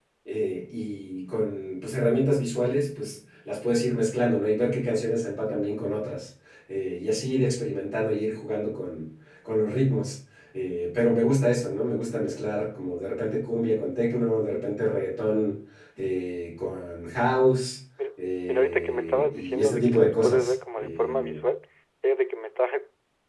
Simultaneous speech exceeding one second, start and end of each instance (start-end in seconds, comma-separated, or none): 18.2-21.4